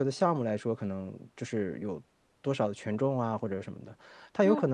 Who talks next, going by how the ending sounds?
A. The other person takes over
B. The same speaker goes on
B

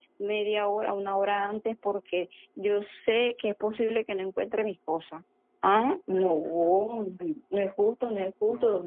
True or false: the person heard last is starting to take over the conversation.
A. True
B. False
B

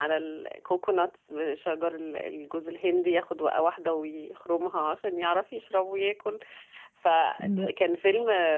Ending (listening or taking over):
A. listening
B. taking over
A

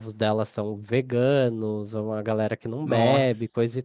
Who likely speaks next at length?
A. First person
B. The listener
A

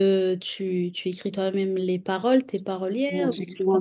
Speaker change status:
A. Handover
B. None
A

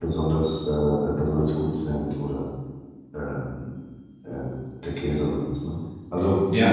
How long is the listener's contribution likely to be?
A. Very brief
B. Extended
B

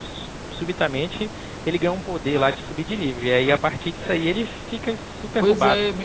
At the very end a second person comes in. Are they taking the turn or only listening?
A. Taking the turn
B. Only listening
A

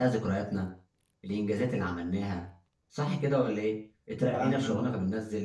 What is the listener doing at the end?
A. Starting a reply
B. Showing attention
B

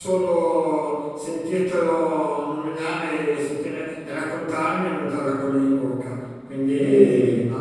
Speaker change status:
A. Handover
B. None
A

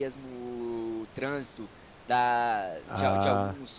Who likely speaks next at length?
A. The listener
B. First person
B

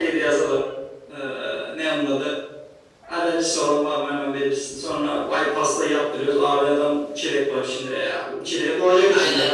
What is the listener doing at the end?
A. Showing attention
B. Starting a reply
B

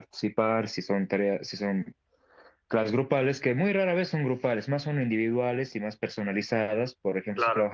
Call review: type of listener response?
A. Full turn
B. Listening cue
B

